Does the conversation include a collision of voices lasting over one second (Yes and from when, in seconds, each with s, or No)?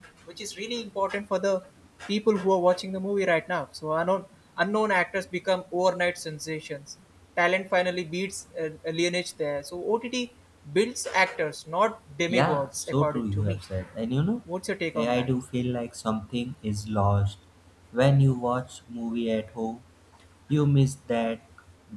Yes, from 12.3 s